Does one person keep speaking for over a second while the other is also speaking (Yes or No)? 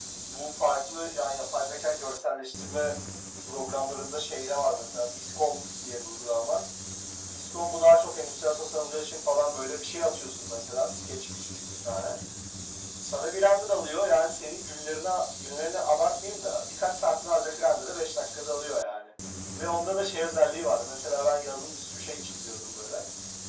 No